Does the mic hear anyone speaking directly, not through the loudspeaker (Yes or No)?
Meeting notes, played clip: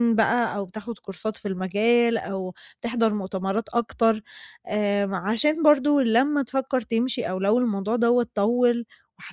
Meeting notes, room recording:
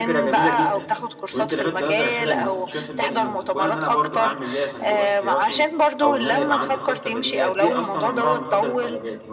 Yes